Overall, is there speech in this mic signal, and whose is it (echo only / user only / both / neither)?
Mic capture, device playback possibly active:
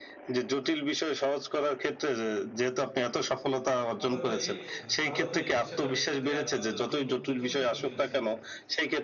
both